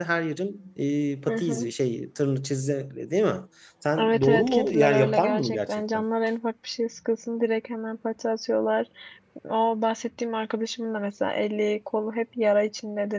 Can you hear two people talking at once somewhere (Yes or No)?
Yes